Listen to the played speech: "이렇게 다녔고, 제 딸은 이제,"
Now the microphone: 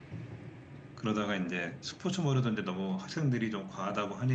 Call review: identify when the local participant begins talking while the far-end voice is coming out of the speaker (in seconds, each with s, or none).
0.9 s